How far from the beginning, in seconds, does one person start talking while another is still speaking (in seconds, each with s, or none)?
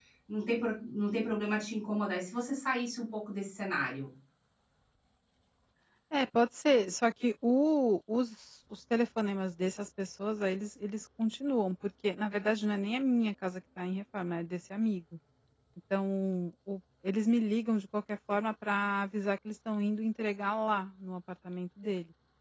none